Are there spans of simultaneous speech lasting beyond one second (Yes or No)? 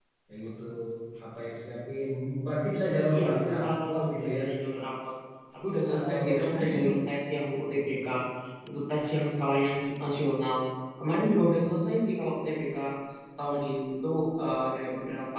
Yes